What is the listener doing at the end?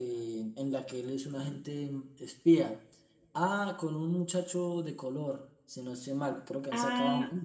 taking over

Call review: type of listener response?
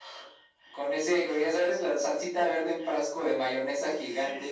taking over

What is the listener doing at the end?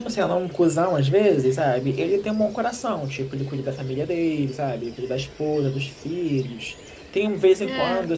listening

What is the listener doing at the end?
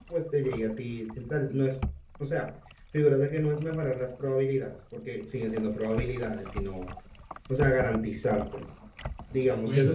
taking over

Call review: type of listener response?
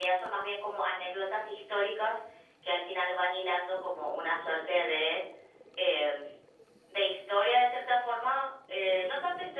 listening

